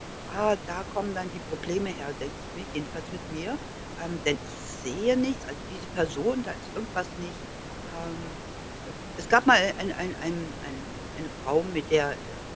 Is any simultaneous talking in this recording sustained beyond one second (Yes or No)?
No